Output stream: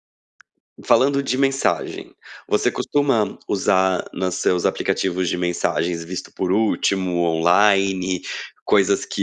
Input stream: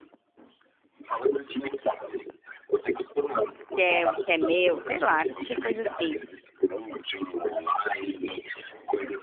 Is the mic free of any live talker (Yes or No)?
No